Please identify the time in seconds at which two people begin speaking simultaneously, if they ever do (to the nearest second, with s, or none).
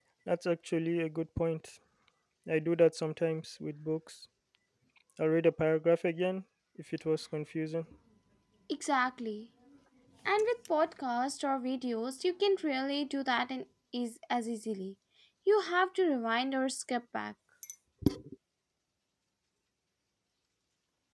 none